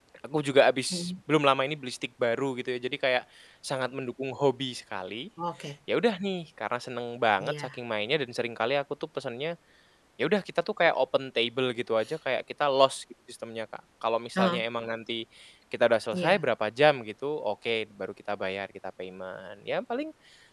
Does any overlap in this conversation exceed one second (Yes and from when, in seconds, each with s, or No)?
No